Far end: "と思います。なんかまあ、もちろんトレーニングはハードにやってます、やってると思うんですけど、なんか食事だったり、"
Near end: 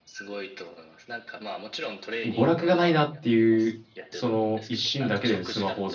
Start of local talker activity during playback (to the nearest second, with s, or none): 2 s